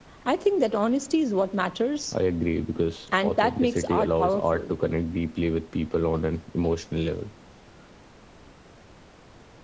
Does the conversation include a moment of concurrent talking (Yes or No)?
Yes